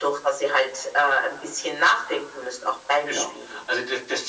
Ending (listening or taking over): taking over